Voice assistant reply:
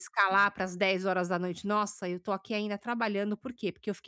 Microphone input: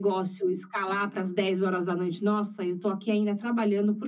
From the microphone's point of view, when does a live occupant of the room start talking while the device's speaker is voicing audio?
none

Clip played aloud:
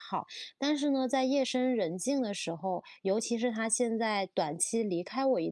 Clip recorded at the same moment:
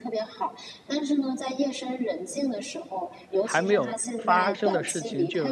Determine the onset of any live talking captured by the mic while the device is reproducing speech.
3 s

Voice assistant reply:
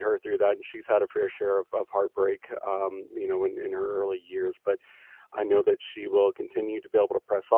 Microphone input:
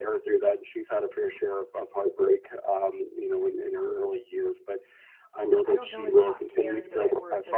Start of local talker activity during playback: 6 s

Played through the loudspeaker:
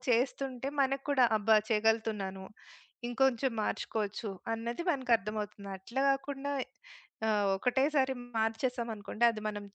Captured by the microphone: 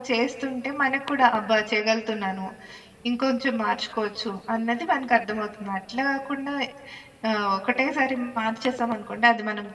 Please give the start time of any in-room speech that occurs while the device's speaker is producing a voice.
none

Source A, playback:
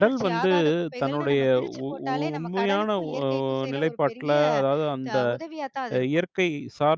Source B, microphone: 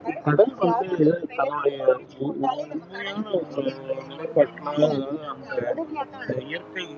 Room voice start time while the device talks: none

